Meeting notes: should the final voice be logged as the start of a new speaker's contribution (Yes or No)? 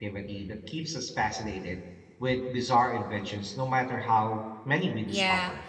Yes